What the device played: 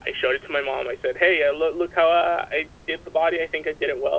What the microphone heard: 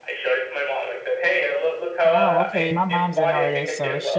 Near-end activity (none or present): present